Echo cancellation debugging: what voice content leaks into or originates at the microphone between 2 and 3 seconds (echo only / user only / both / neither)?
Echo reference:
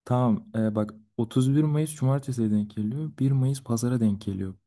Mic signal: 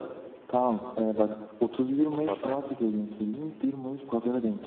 both